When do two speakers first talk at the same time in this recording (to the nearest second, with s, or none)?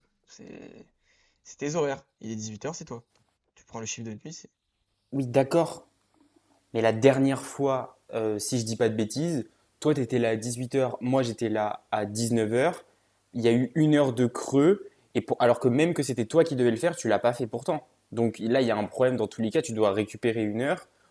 none